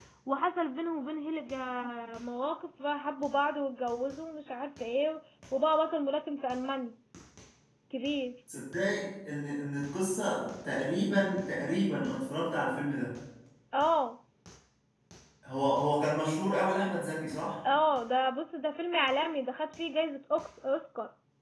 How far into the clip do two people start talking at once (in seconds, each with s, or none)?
none